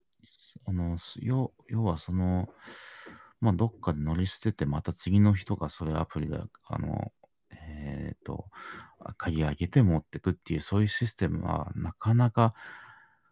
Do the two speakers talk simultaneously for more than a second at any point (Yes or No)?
No